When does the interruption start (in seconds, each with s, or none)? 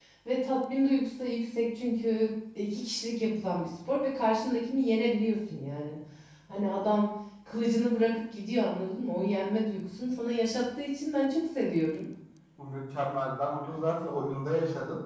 none